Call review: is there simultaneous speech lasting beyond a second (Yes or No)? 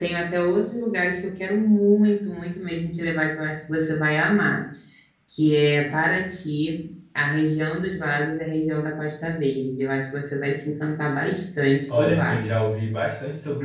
No